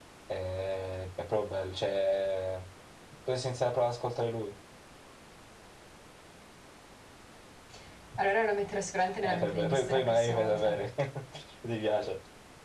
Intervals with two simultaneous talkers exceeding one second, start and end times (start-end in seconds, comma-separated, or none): 9.2-10.8